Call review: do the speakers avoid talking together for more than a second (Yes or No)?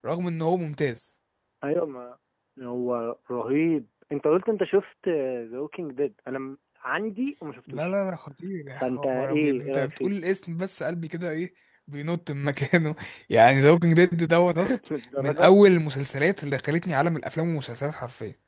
No